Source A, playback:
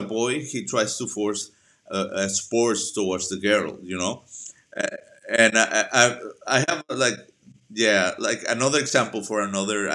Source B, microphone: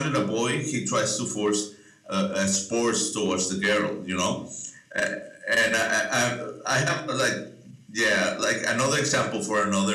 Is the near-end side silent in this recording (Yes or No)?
Yes